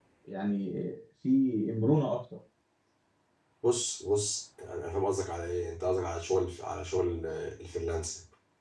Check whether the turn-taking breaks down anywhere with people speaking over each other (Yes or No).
No